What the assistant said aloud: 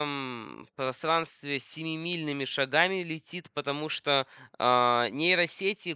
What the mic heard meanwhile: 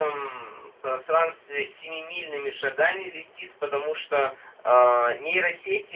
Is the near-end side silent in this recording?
Yes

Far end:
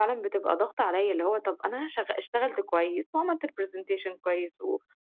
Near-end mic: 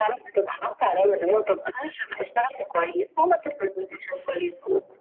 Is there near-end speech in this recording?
No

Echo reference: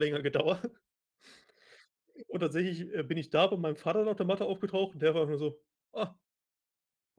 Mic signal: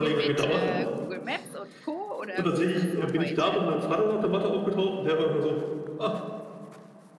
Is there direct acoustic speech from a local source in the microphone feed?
Yes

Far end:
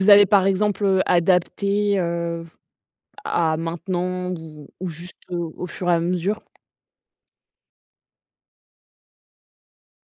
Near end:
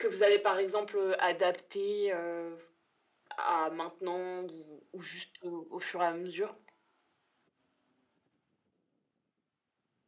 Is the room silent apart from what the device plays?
Yes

